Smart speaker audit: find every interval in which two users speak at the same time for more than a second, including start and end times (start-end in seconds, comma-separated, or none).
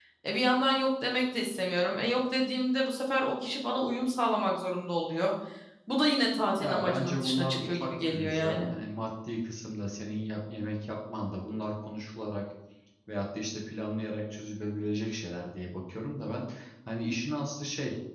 6.6-8.7